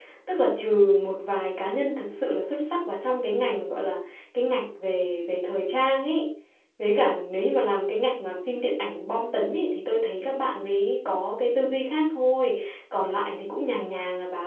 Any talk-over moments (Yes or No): No